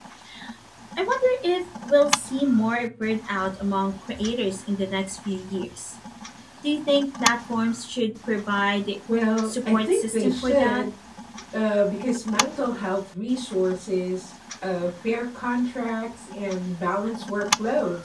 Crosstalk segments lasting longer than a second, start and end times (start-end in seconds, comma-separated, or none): 9.4-10.8